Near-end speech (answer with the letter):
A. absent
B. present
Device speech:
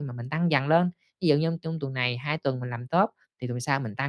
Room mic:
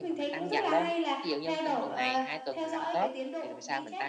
B